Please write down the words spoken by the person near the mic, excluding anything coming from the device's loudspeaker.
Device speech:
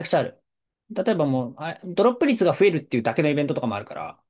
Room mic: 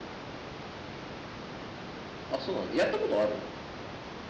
あ、そうなの。やったことあるの

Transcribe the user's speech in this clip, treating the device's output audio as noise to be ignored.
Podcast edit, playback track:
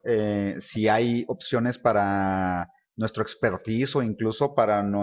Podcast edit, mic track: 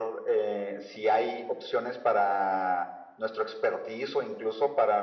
none

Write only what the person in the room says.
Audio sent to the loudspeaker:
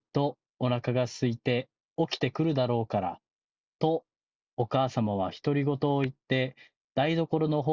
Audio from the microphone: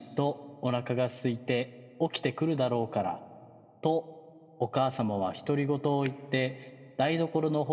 none

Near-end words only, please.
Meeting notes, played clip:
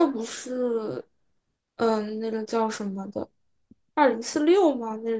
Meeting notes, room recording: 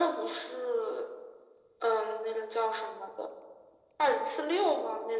none

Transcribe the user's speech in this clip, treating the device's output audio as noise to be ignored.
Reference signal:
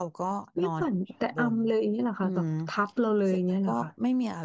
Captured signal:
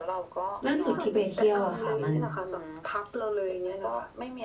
ล่าสุดที่ไปเที่ยวอะค่ะมัน

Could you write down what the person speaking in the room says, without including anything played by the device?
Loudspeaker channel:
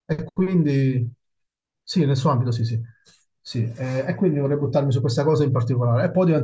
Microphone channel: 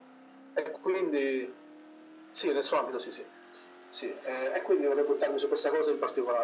none

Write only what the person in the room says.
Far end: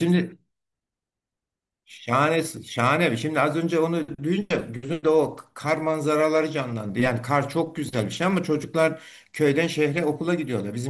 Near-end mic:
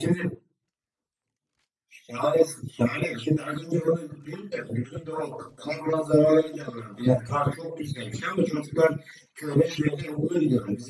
none

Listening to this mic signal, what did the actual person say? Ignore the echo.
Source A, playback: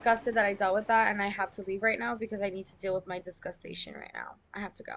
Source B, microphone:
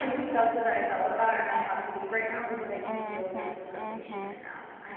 Mm-hmm. Mm-hmm.

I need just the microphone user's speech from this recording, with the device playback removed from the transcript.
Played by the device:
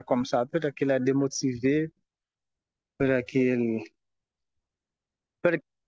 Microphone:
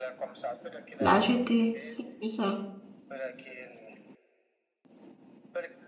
la jeter. C'est que ça.

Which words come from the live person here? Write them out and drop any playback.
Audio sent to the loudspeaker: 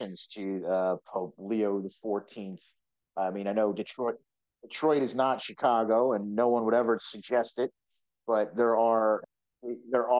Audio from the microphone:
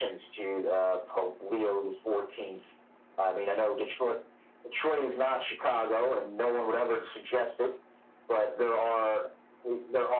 none

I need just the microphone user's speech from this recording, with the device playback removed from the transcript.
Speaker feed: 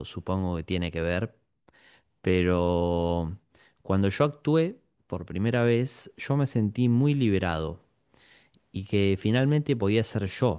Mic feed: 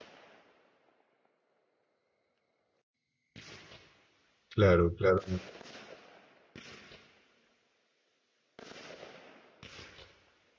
Claro, claro.

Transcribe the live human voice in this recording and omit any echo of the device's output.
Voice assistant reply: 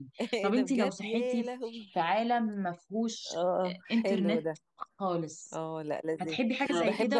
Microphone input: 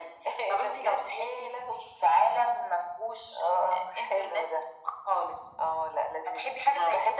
none

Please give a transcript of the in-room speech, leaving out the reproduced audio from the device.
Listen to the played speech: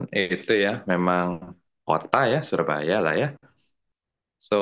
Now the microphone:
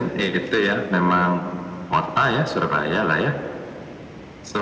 none

